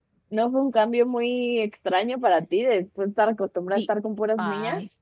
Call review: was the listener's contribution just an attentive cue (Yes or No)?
No